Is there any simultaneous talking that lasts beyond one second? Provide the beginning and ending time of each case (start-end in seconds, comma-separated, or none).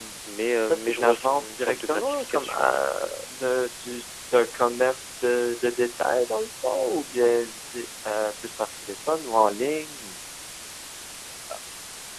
0.6-2.6